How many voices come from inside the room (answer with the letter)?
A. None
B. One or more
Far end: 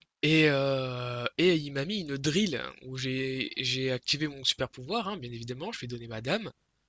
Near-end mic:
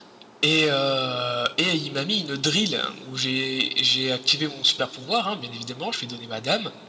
A